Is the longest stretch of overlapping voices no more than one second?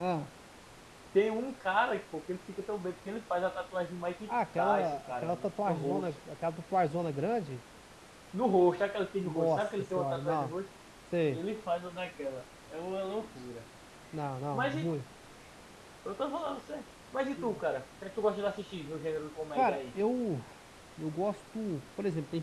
No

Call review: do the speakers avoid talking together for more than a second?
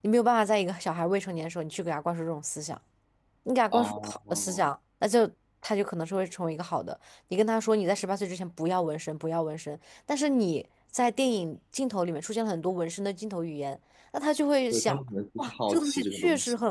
No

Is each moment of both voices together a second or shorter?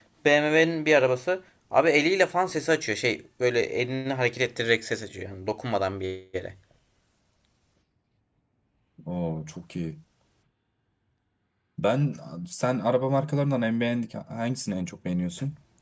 Yes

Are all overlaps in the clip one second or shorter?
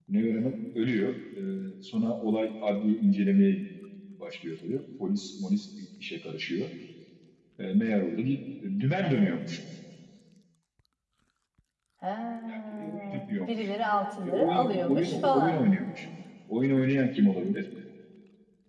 No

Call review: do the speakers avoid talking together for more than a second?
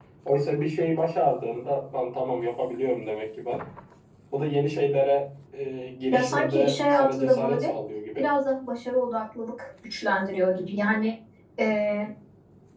No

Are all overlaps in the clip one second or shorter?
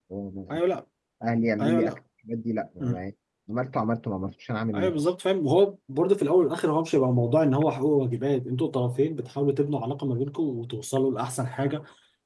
Yes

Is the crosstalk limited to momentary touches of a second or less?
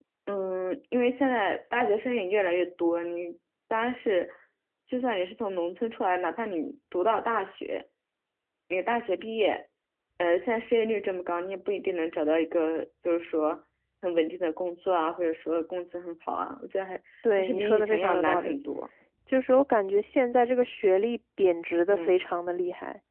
No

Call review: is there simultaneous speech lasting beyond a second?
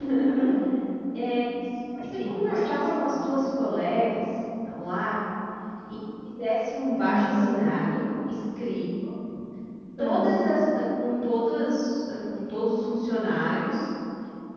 Yes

